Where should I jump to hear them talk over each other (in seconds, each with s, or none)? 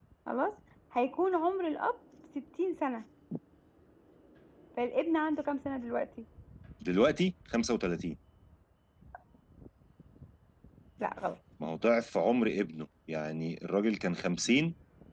none